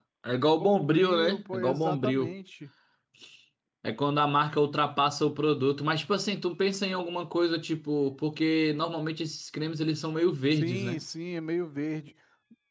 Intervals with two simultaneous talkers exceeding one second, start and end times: 0.6-2.3

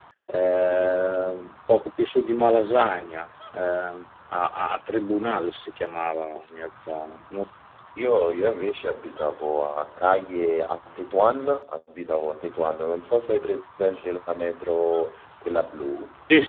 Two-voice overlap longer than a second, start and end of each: none

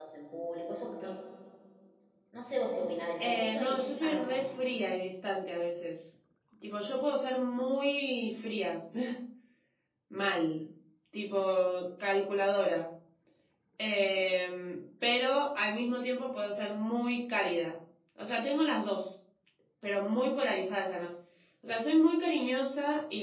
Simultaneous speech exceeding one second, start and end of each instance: 3.2-4.4

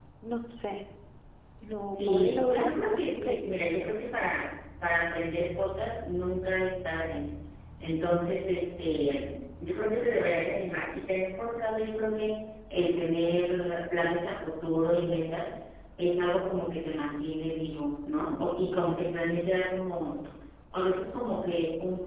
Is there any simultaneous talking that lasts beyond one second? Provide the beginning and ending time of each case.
1.9-3.6

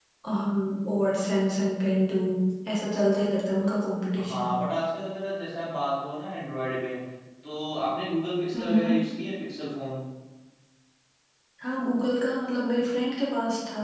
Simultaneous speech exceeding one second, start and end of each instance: none

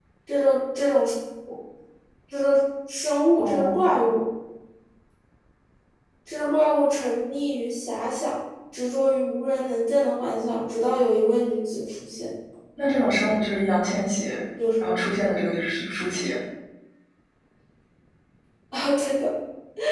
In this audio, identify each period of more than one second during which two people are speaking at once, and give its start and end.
none

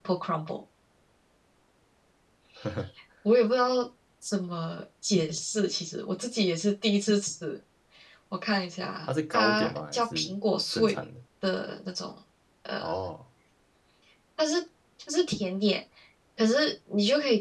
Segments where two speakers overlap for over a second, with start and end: 9.1-10.3

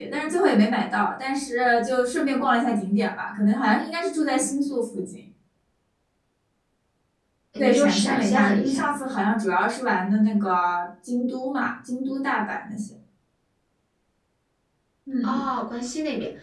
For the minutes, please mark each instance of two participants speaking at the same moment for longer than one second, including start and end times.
7.6-8.8

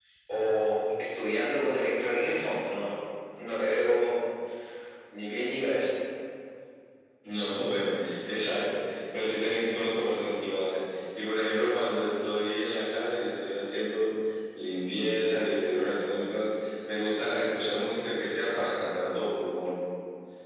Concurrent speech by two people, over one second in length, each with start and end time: none

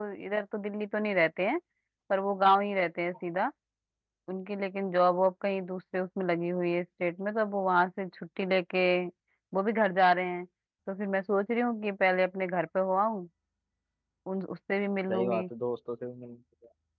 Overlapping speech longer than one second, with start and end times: none

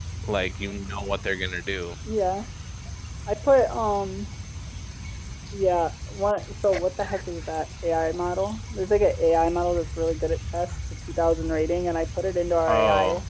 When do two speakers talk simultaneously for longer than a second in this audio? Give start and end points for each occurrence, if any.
none

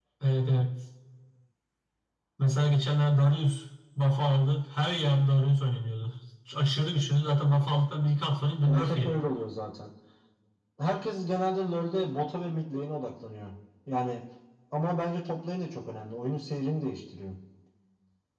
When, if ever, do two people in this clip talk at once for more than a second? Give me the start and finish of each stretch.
none

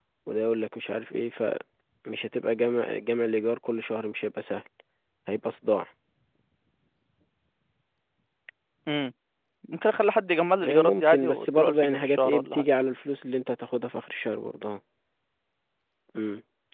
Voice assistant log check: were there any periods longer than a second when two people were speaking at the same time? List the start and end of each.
10.6-12.7

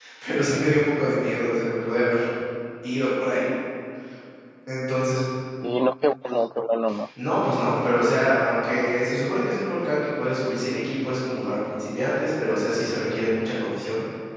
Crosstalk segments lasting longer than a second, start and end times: none

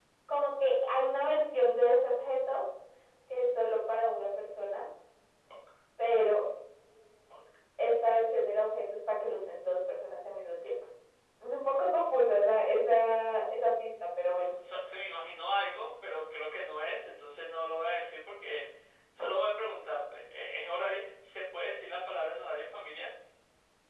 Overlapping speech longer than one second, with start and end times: none

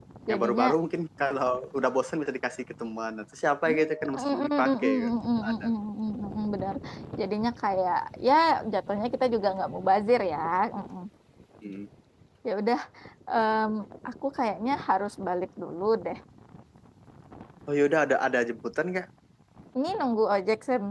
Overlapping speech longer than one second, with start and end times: 3.7-5.1

